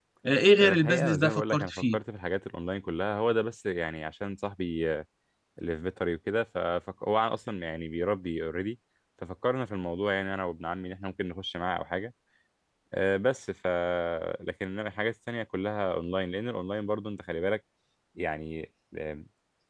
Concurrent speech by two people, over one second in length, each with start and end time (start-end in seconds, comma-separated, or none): 0.6-2.0